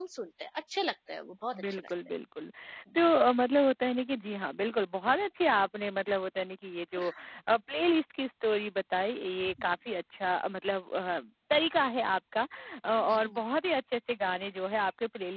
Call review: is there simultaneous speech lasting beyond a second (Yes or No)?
No